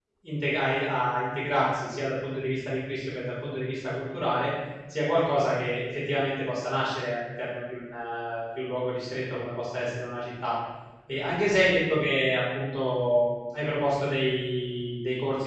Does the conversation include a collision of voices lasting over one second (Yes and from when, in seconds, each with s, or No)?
No